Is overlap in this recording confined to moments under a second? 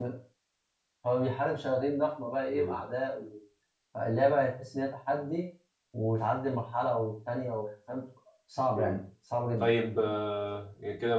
Yes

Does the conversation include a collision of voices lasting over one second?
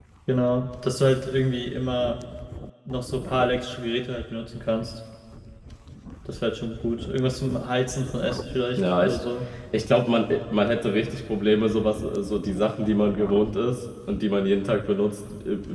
No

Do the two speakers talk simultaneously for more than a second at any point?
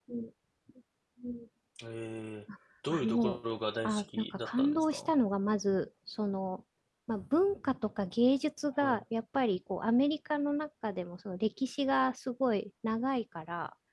Yes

